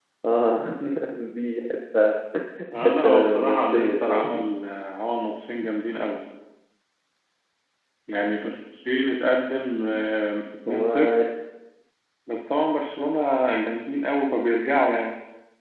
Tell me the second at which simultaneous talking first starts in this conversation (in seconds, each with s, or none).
2.8 s